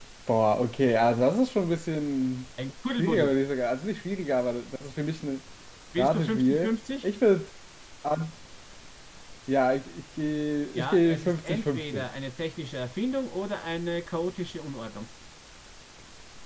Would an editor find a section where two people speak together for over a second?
Yes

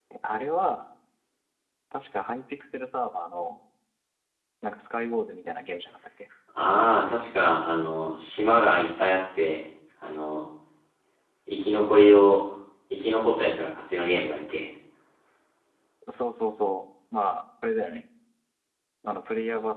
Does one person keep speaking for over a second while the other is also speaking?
No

